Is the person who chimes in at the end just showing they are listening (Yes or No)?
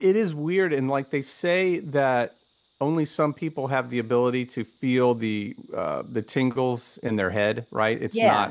Yes